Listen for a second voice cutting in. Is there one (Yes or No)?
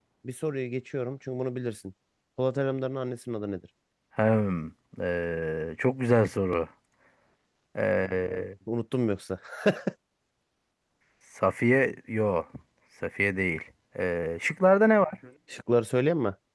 No